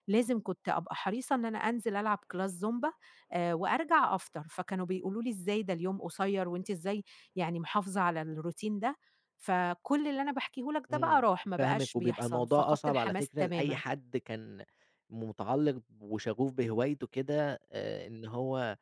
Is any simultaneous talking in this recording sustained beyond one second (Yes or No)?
Yes